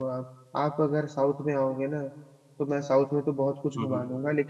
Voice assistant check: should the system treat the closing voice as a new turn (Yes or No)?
No